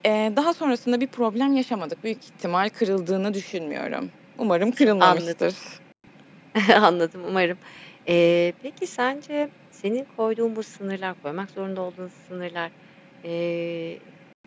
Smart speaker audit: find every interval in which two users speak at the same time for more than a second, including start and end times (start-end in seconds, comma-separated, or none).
none